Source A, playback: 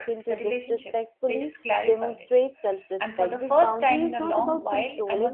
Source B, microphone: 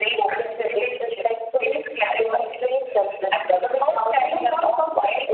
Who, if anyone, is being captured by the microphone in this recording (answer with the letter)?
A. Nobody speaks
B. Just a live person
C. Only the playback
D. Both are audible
C